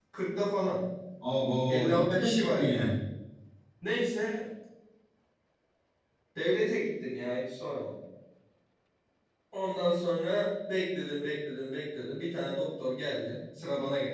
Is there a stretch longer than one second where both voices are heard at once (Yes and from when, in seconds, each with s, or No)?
Yes, from 1.7 s